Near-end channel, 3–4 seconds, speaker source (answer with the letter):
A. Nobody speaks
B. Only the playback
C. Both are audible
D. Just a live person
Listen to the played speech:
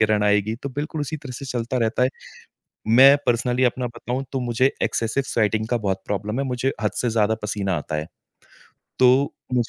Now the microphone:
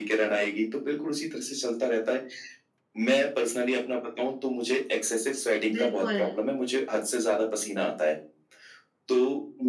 B